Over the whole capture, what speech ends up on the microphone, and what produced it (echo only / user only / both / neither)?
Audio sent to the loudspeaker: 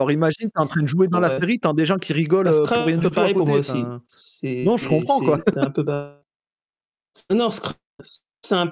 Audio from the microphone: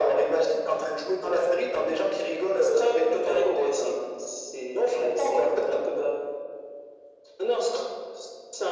echo only